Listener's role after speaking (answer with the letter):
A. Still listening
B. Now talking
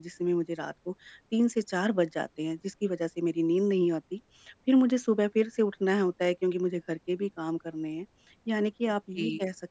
A